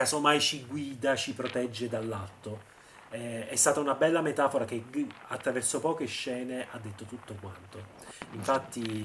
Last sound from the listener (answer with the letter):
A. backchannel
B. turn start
A